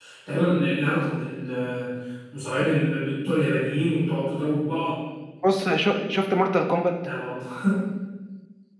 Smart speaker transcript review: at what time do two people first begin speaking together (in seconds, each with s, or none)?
none